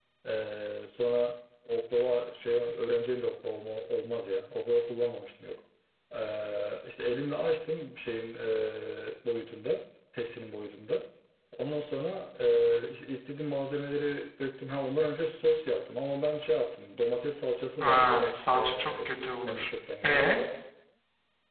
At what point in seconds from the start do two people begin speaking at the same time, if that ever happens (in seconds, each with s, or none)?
17.8 s